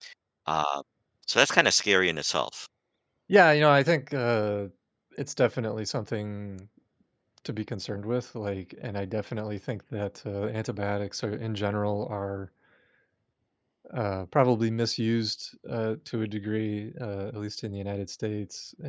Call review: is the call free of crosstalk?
Yes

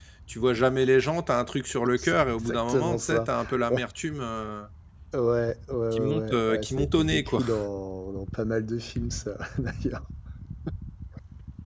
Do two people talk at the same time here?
Yes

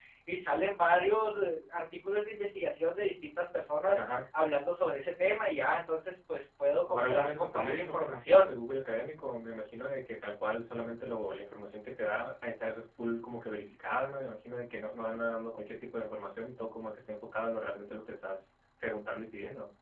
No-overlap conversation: No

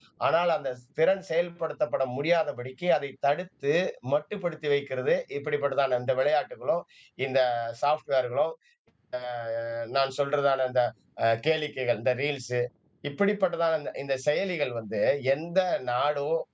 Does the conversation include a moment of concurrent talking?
No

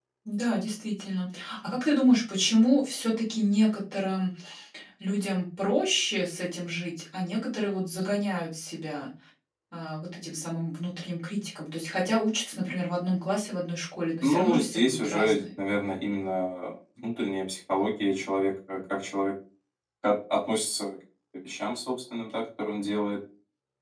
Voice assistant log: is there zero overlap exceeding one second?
No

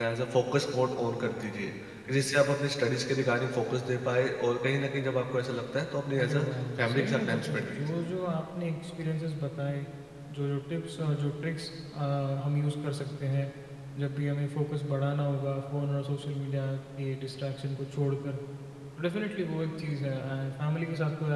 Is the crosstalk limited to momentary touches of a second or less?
No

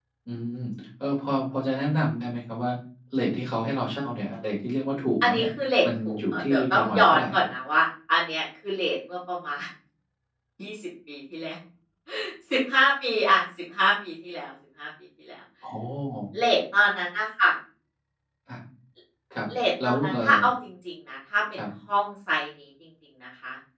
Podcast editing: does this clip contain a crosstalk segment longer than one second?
Yes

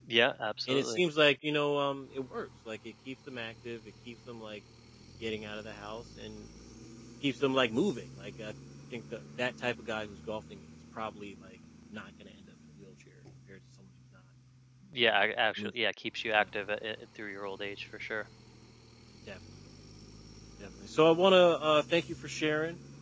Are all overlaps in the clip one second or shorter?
Yes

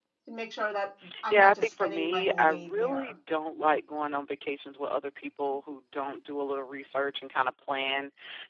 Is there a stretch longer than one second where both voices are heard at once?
Yes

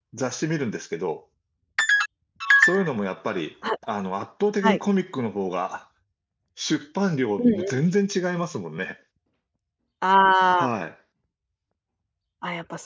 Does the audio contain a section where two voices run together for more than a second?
No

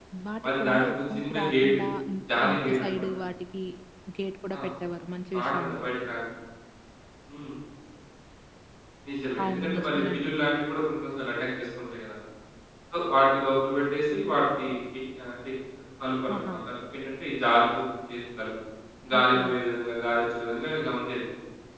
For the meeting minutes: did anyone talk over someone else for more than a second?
Yes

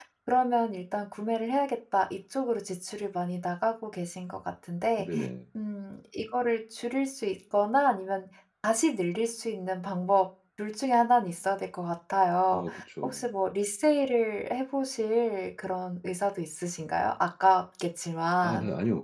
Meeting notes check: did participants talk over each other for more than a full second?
No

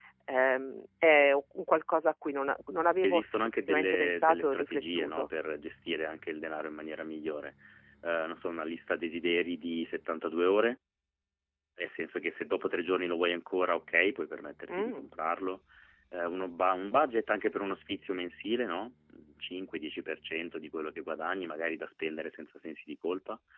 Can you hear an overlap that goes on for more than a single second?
Yes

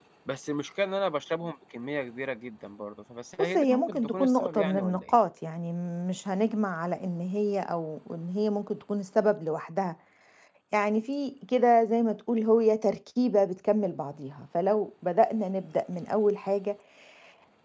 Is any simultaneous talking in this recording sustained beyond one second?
Yes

